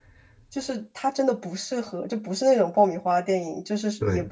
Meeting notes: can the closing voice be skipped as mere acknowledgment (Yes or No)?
Yes